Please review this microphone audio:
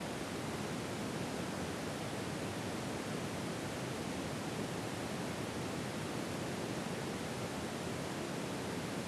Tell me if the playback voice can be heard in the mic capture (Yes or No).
No